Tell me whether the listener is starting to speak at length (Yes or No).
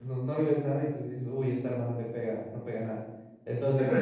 Yes